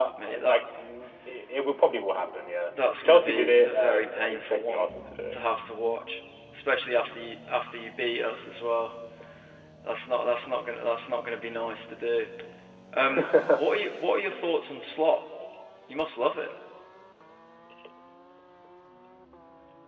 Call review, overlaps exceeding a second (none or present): present